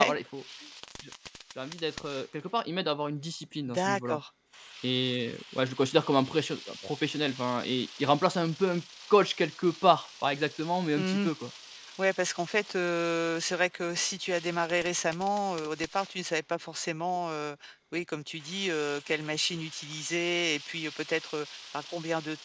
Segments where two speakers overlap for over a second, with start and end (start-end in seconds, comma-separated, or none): none